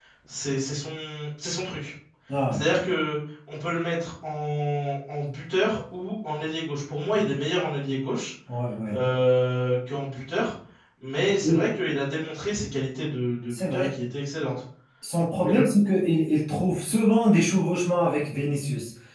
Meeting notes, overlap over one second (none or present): none